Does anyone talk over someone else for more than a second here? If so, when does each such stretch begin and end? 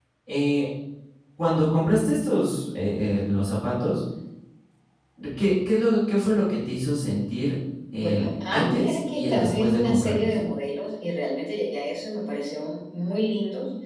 8.0-10.3

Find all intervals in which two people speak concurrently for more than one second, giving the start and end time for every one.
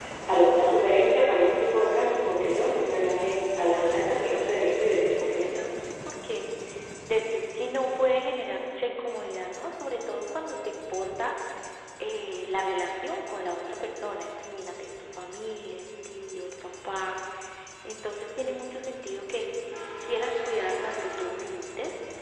3.6-5.6

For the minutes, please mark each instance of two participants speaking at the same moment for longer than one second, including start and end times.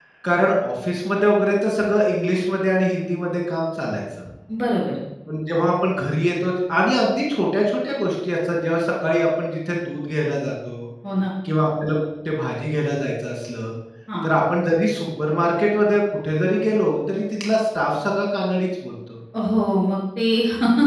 none

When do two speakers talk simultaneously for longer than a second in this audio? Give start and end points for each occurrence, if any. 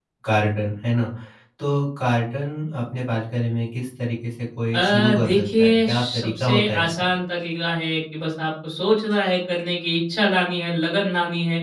4.7-6.9

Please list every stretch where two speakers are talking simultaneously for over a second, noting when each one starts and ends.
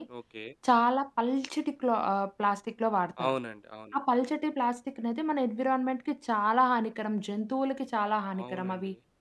none

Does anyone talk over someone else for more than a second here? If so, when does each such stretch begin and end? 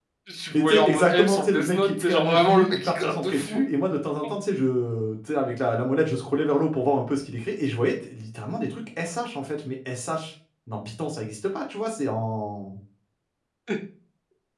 0.5-3.6

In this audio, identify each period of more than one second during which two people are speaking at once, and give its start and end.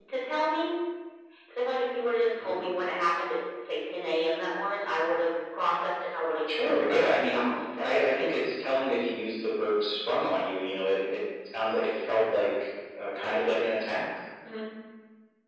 6.5-8.3

